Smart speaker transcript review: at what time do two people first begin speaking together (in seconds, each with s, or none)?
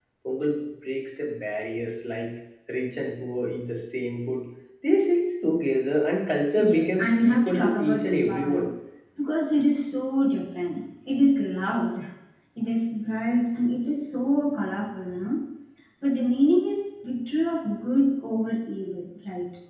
6.6 s